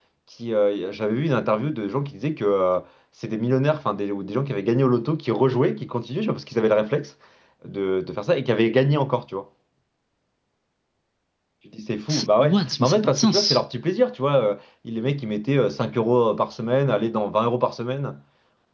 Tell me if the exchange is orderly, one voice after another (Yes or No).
No